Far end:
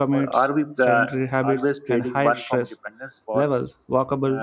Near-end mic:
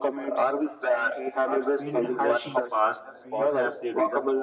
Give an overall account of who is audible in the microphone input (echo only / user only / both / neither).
both